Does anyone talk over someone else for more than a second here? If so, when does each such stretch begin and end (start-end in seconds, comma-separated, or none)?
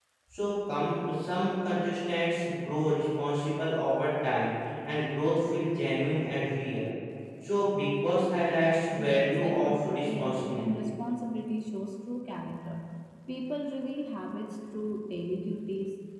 8.9-10.9